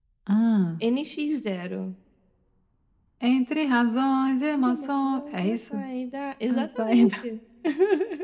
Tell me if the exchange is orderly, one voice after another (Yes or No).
No